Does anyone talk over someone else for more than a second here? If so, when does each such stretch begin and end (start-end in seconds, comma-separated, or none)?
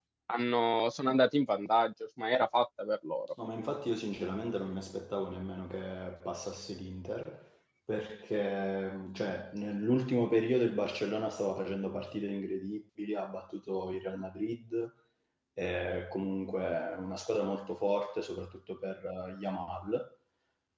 none